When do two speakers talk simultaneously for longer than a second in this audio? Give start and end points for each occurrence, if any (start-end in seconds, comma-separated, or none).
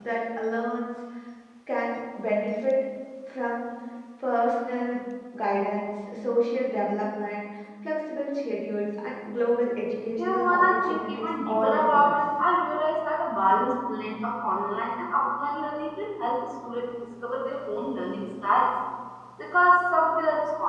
10.2-12.2